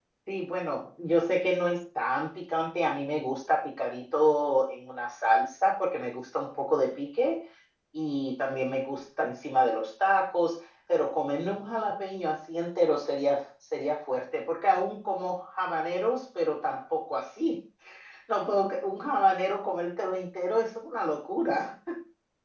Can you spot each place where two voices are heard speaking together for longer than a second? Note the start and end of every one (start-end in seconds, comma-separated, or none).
none